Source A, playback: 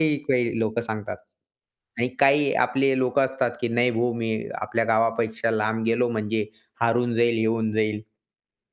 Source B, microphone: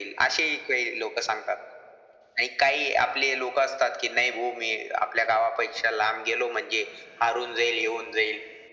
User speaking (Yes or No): No